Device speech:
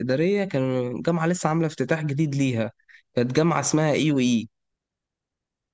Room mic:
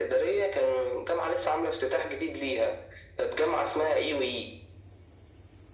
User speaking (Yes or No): No